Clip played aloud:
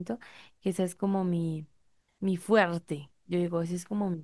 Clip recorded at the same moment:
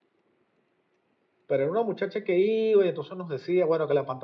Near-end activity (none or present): present